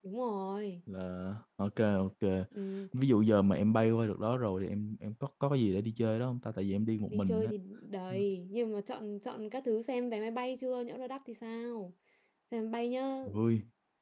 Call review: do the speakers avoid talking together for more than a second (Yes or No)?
Yes